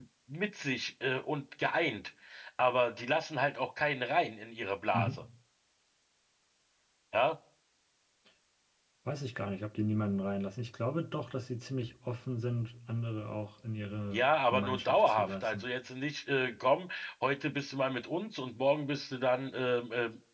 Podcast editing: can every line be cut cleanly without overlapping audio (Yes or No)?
No